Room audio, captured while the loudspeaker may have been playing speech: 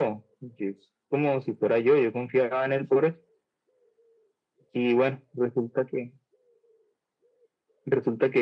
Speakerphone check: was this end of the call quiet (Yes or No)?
Yes